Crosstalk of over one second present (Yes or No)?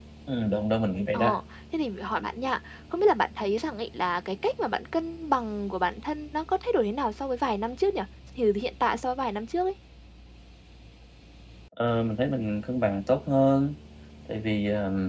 No